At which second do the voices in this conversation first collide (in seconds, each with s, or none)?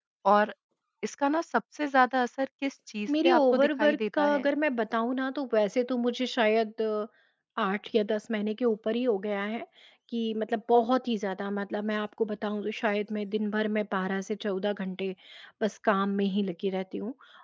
3.1 s